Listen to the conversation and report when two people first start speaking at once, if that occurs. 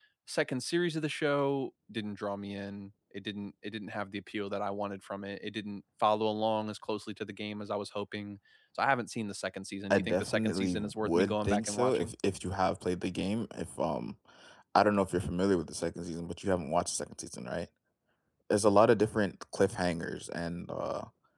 9.9 s

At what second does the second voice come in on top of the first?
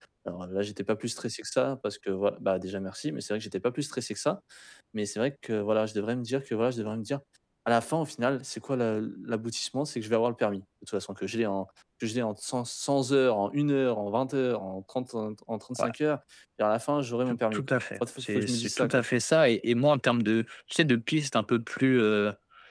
17.3 s

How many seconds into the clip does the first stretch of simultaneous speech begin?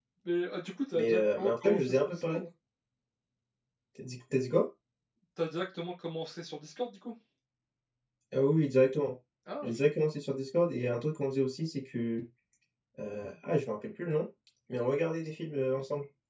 0.9 s

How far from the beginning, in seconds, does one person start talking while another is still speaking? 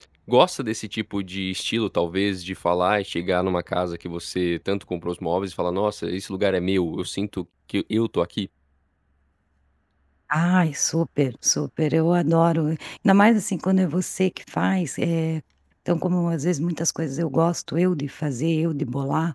none

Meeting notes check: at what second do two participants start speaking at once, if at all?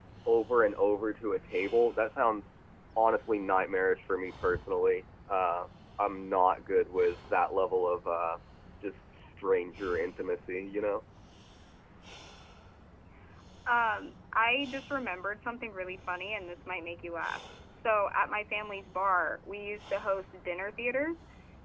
none

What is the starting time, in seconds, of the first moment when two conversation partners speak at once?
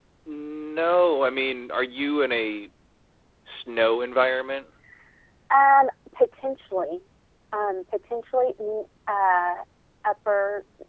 none

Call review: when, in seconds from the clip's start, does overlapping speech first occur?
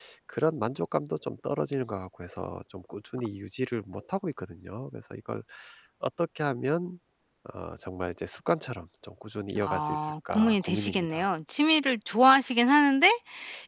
9.5 s

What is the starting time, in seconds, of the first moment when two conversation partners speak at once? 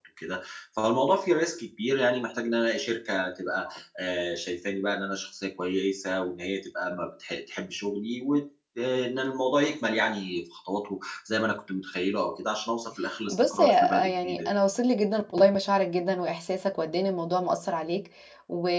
13.3 s

